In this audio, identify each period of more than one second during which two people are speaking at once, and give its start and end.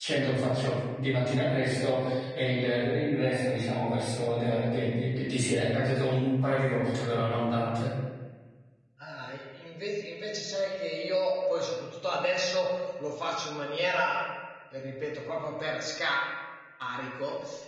none

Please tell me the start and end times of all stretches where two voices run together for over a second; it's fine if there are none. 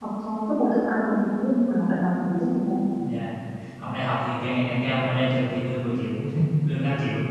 none

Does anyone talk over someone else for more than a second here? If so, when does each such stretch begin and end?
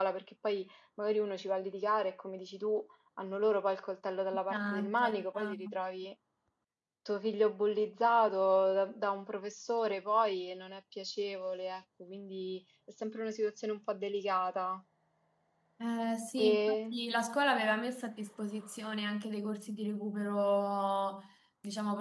4.5-5.7

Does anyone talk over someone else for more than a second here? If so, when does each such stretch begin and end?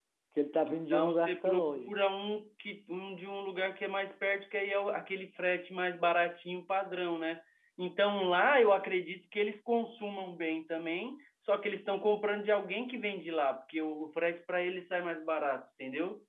0.6-1.9

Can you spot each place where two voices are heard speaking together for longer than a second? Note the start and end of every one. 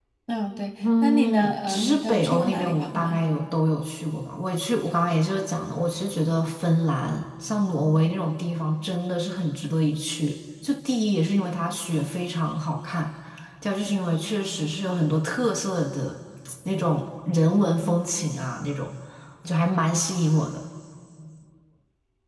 1.0-3.2

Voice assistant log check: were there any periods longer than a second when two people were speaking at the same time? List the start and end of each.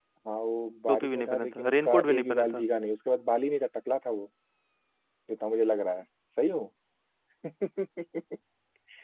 0.9-2.6

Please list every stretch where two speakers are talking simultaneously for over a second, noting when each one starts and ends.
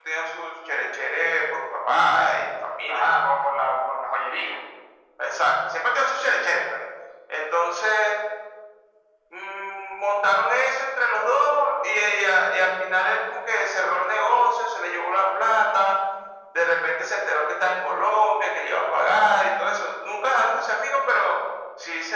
none

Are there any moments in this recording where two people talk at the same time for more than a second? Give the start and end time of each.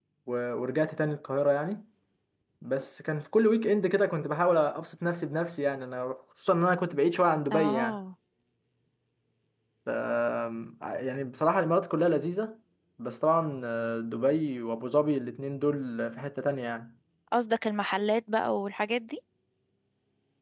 none

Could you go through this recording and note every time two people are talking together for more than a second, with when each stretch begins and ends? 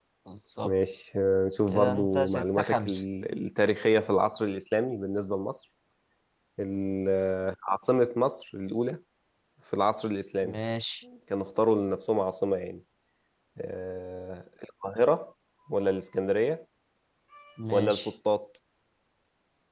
1.7-3.0

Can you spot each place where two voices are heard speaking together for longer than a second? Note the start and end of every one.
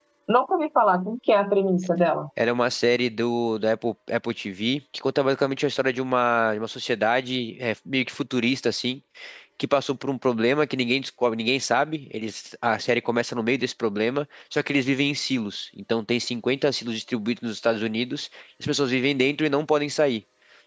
none

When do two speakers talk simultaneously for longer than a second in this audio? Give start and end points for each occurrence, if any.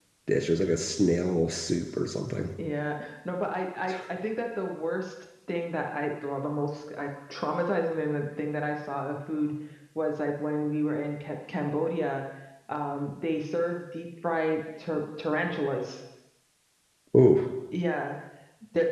none

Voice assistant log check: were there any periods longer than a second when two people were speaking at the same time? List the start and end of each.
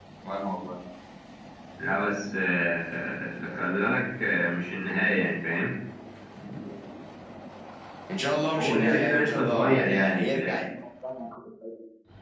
8.6-10.6

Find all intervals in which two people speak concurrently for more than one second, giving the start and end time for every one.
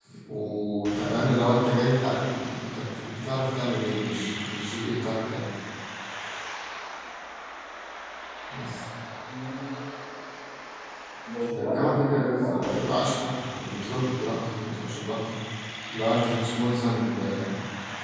11.6-13.0

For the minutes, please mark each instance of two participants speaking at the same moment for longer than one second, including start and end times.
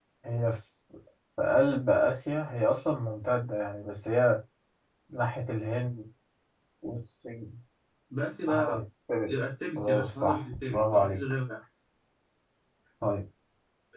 9.8-11.2

